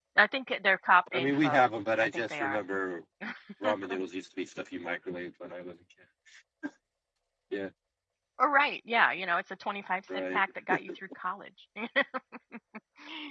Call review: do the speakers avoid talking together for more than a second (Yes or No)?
Yes